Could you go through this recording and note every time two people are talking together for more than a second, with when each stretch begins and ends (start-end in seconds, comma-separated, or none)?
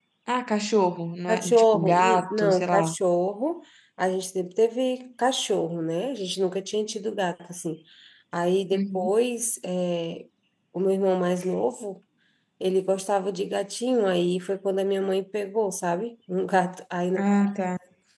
1.3-3.0